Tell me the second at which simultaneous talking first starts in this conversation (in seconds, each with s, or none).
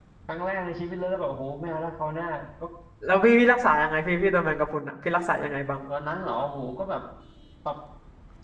none